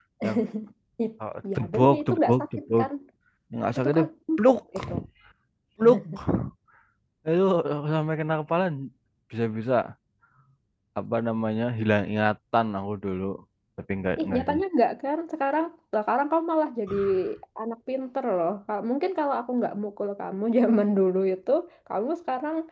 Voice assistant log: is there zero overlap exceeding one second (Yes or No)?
No